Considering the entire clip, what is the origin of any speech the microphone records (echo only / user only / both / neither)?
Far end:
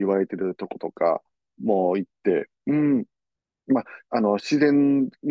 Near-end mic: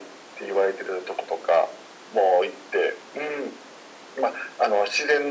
echo only